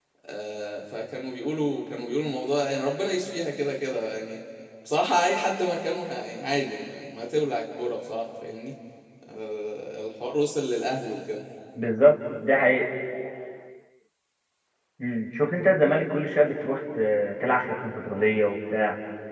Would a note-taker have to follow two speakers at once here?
No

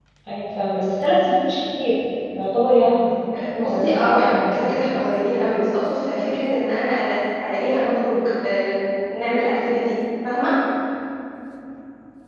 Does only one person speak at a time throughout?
No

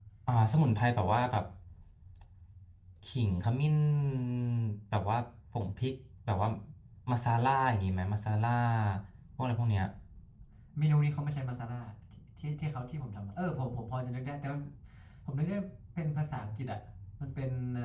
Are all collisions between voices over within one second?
Yes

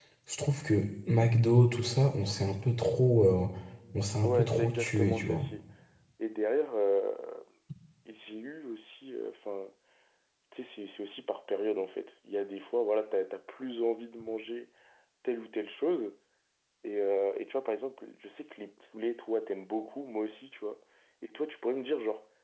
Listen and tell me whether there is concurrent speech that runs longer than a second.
Yes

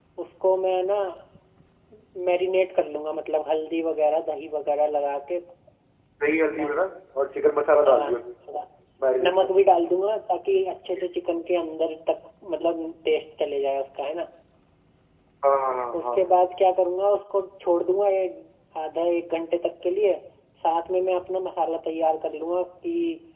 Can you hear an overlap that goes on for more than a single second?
No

